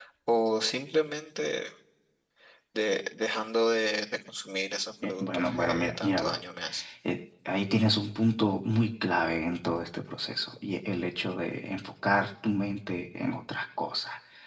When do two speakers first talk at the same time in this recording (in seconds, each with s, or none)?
5.0 s